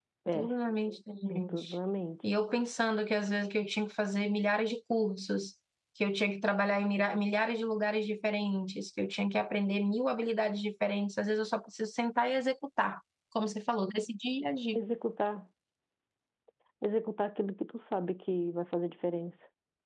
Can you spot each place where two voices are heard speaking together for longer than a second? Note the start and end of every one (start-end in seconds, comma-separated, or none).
none